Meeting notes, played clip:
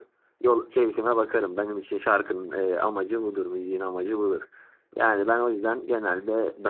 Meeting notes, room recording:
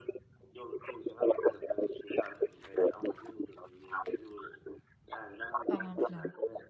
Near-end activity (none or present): present